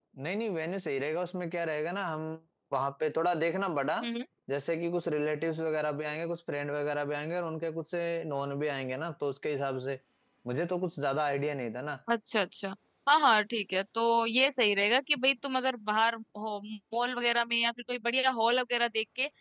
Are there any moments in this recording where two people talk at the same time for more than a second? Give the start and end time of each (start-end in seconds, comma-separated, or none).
none